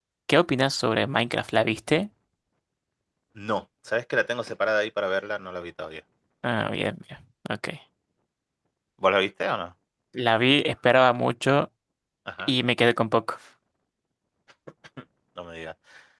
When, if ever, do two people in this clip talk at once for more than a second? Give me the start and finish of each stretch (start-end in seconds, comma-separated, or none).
none